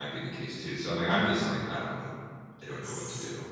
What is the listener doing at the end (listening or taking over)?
taking over